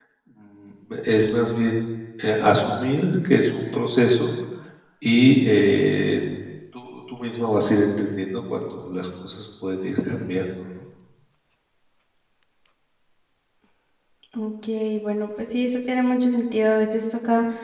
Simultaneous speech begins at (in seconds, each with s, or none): none